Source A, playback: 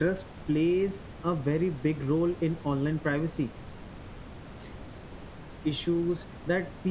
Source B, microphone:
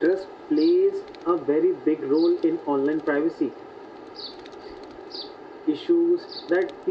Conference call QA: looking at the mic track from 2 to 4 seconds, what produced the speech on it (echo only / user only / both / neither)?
echo only